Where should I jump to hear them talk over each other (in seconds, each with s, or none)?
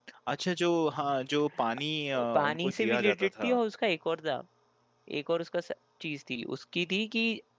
2.1 s